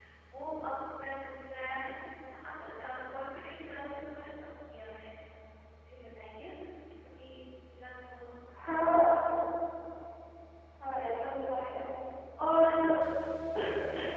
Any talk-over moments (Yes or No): No